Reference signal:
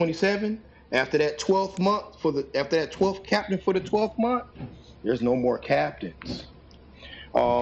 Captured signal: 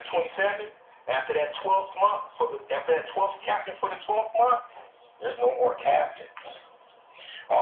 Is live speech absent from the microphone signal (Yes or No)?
Yes